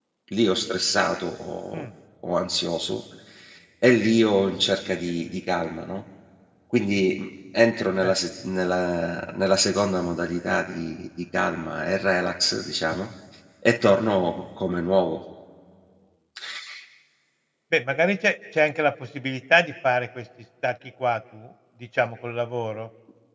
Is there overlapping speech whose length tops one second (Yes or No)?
No